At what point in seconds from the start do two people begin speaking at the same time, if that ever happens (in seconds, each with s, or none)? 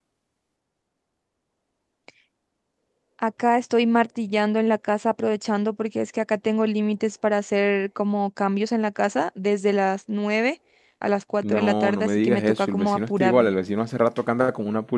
11.4 s